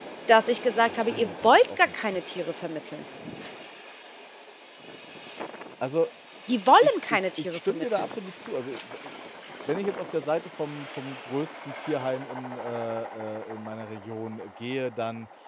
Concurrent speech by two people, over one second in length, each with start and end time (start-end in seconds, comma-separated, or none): 0.9-2.3, 6.8-8.1